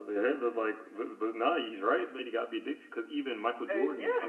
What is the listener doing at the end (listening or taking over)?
listening